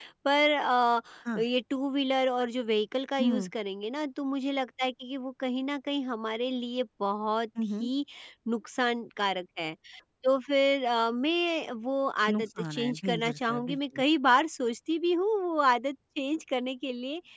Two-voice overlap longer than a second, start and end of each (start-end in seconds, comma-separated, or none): 12.3-14.0